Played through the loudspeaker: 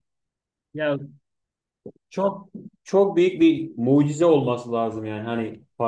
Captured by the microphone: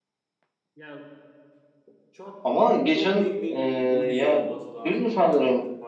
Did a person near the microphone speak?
Yes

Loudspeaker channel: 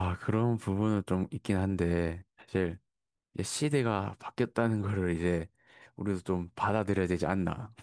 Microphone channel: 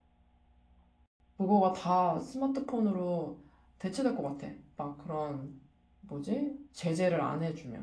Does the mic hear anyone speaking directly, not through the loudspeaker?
Yes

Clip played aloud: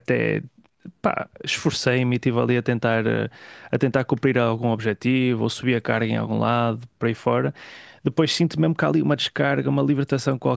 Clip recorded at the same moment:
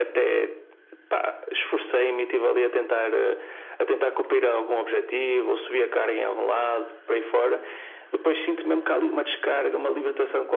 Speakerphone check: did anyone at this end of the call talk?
No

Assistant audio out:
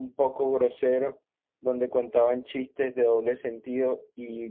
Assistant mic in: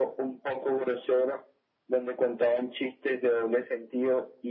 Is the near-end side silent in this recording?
Yes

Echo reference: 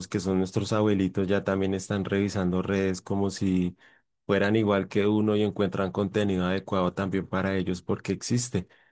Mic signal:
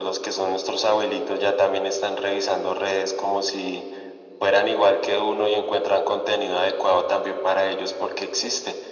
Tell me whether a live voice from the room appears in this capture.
No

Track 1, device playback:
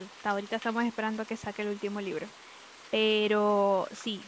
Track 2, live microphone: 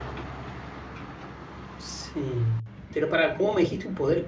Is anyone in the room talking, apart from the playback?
Yes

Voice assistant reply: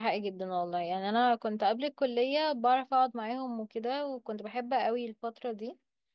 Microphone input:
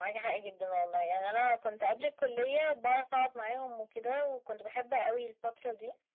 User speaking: No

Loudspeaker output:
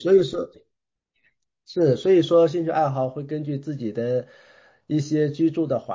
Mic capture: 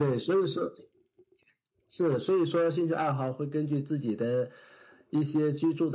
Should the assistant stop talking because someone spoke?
No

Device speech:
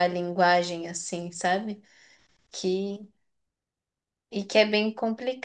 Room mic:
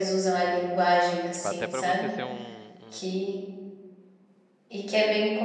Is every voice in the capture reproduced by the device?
No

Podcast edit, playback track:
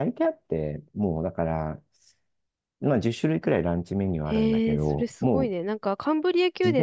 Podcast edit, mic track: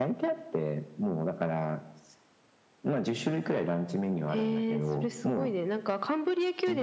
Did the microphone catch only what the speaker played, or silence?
Yes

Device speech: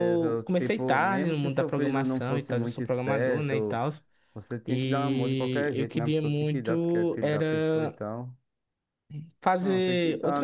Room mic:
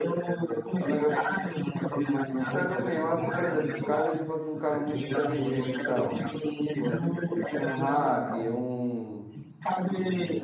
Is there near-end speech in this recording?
Yes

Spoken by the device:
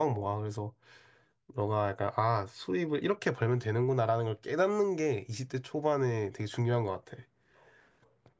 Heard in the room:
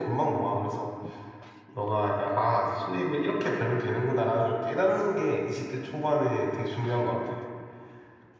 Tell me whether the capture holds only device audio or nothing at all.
Yes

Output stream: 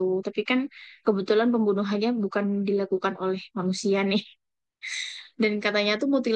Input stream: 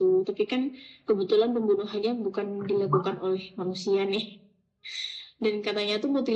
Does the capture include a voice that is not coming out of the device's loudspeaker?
Yes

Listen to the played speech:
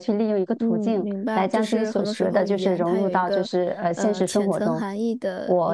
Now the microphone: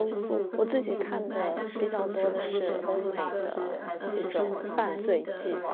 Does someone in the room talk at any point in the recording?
Yes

